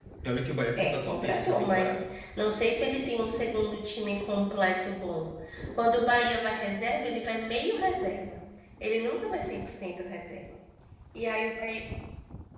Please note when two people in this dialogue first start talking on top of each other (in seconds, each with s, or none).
0.8 s